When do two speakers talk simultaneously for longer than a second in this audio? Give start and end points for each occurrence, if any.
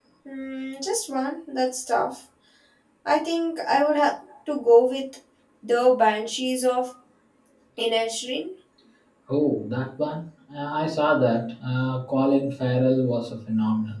none

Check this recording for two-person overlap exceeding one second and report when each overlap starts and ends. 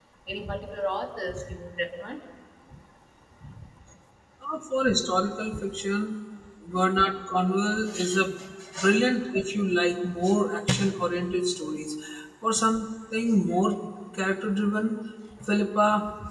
none

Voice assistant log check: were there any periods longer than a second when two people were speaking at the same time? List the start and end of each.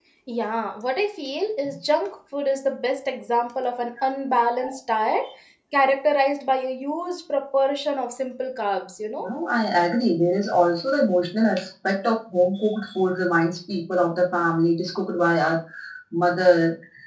none

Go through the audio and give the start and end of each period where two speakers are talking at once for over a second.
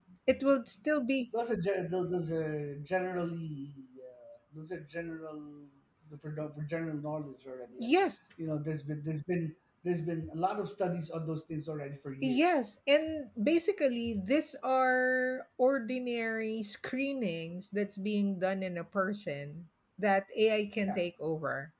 none

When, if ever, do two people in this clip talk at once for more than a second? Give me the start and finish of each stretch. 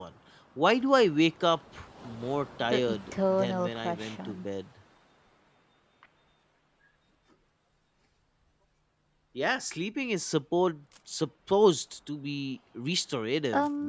2.7-4.4

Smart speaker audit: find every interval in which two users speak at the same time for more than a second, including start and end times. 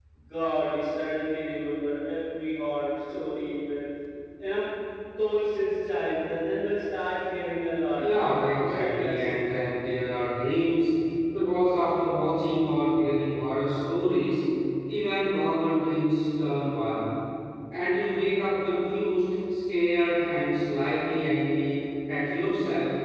8.0-9.5

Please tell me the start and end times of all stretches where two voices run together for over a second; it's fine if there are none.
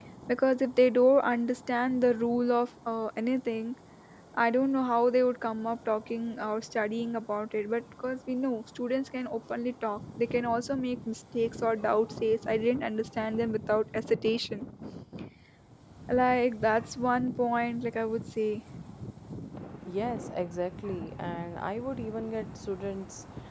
none

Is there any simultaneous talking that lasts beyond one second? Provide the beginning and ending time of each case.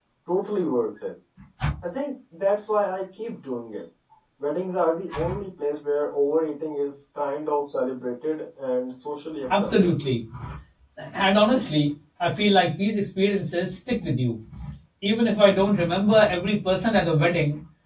none

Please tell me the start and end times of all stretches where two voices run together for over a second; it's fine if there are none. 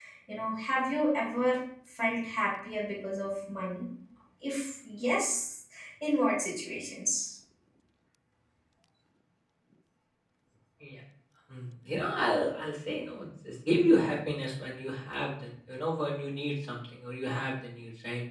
none

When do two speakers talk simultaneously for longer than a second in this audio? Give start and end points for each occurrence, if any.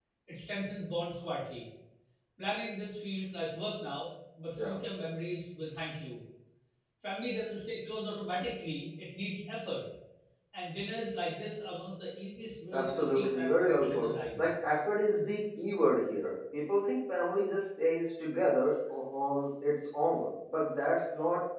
12.7-14.4

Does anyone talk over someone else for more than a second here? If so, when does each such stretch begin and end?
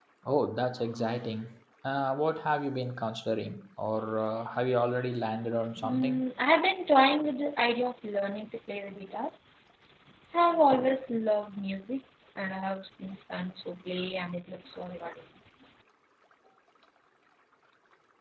none

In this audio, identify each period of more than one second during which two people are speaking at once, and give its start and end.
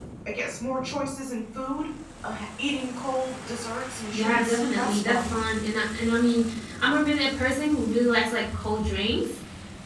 4.1-5.4

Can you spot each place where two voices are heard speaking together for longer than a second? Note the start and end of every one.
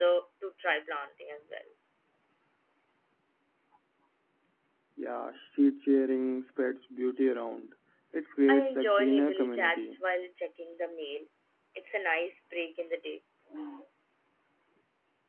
8.5-10.0

